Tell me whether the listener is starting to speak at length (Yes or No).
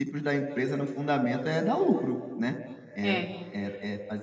No